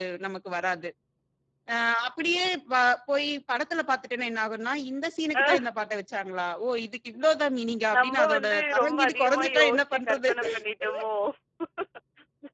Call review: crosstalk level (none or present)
present